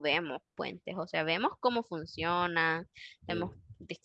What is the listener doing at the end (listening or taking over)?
listening